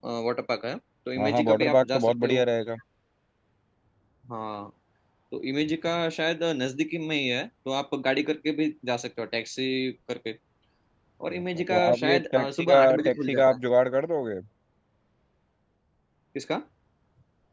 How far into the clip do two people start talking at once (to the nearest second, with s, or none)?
1 s